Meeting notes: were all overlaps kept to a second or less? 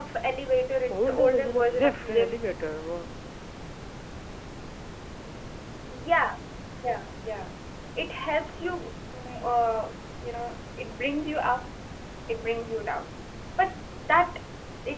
No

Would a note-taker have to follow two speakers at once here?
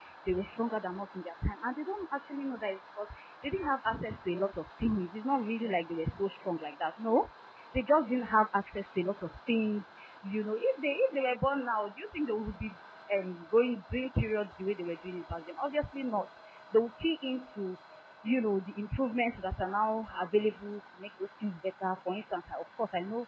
No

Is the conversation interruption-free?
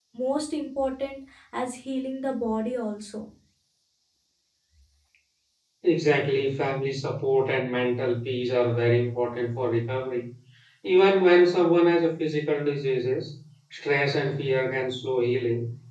Yes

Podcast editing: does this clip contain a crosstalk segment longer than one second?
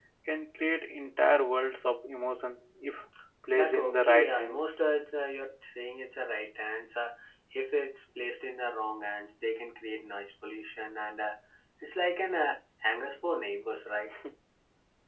Yes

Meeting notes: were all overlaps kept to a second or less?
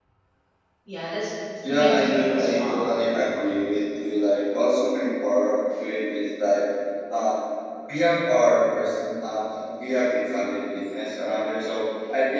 No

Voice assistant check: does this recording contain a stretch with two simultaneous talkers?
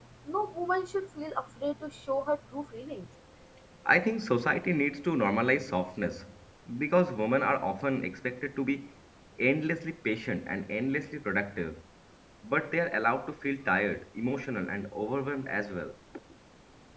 No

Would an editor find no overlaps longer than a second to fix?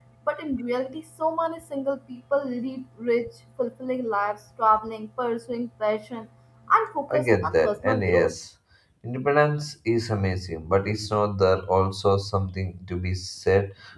No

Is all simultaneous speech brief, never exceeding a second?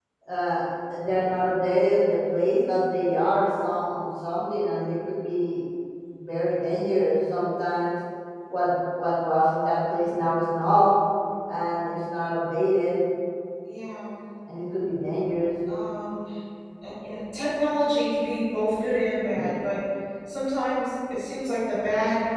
Yes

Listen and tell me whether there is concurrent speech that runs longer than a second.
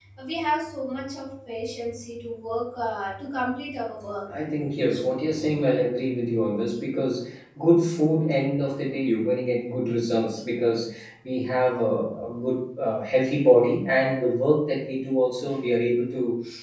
No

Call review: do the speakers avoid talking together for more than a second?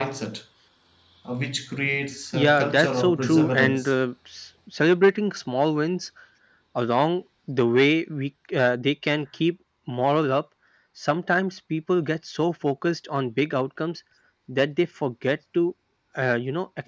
No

